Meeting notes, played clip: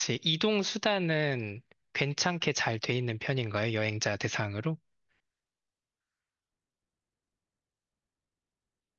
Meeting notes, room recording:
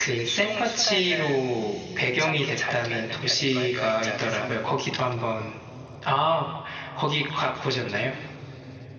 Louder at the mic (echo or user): user